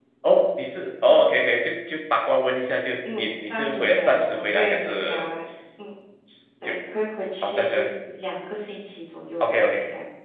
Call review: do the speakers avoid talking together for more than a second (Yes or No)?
No